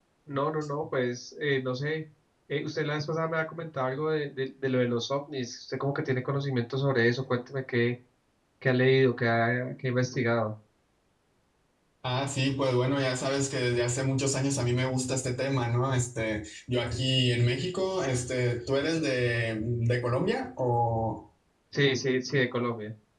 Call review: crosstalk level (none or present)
none